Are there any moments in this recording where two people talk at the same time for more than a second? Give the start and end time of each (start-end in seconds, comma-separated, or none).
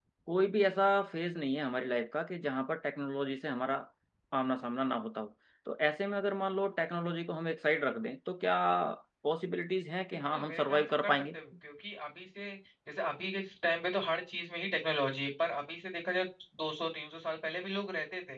10.1-11.4